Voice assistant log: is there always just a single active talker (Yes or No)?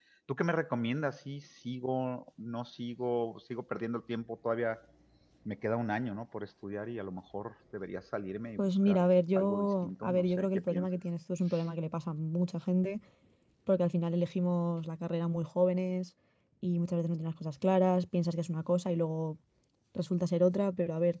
No